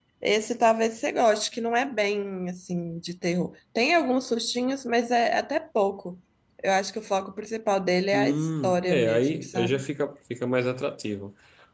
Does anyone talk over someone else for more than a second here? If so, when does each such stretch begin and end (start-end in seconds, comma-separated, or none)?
8.1-9.8